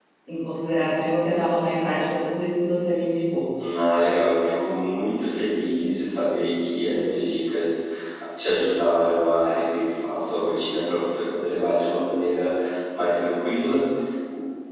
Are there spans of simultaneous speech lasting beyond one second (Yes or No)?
No